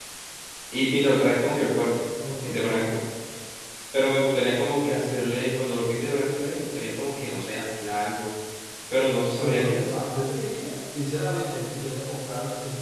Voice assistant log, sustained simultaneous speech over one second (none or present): none